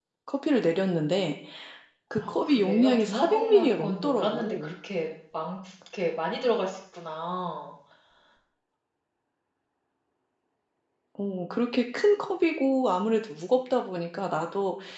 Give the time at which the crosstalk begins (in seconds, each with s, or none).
2.2 s